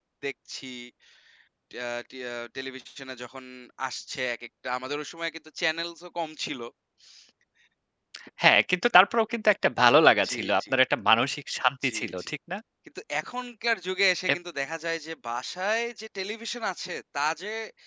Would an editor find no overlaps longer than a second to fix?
Yes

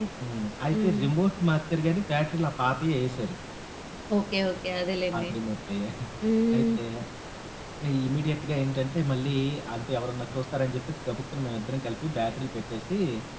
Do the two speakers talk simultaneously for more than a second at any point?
No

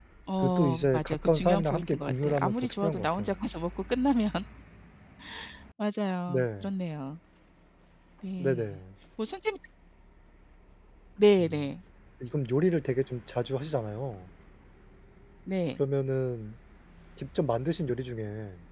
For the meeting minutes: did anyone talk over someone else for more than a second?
Yes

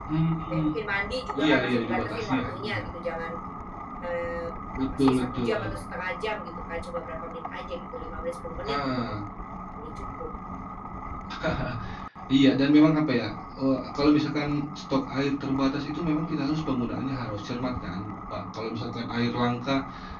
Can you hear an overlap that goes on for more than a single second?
Yes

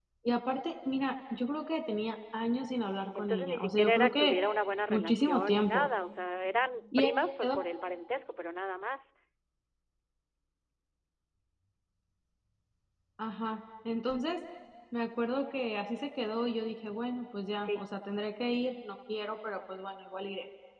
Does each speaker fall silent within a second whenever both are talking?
No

